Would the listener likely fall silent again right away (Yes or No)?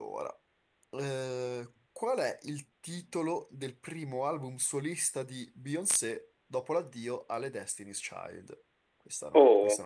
No